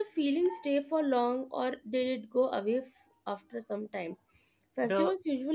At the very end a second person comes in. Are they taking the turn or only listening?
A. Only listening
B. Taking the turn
A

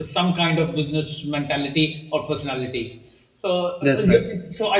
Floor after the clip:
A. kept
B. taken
A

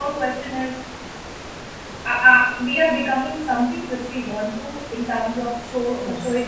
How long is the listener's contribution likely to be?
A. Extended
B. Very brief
B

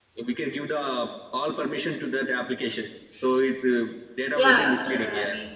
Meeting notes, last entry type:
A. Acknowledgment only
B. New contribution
B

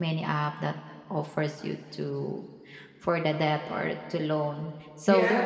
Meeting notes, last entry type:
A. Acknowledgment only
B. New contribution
A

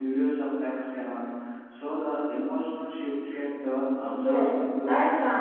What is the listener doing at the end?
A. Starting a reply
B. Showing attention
A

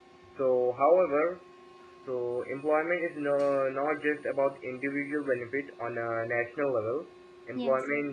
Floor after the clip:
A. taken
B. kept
B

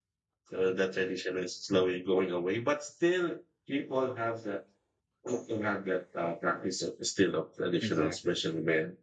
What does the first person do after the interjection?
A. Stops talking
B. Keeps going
B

